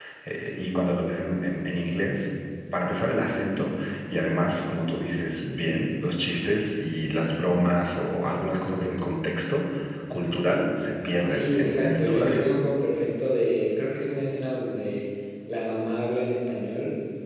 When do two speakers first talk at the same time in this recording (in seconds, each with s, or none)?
11.3 s